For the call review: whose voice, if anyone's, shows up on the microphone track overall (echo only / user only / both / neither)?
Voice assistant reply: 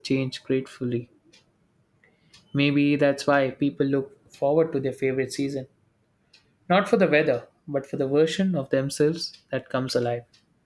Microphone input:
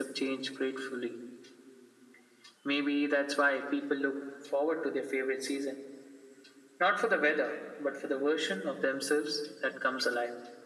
echo only